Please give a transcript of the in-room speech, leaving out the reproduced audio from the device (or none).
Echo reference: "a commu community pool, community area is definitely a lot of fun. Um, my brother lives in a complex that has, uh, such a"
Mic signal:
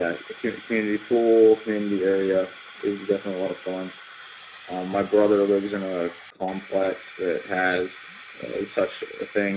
none